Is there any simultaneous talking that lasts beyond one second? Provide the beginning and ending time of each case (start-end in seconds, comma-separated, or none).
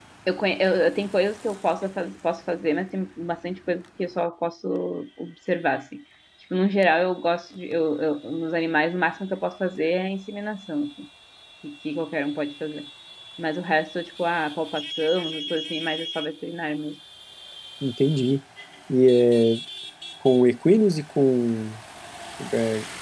none